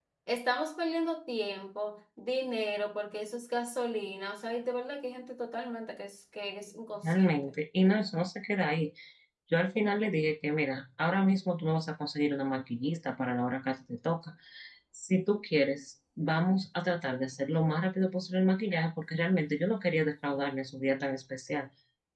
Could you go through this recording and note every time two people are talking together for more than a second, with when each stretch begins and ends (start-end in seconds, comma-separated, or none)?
none